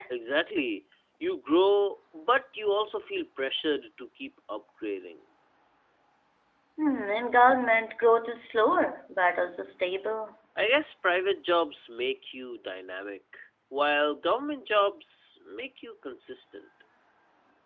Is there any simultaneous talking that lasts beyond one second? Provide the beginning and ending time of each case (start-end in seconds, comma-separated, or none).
none